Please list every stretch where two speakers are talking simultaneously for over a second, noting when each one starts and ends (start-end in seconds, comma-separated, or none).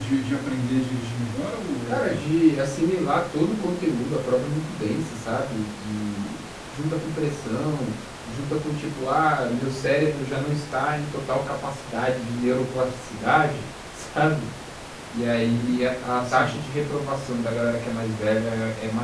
none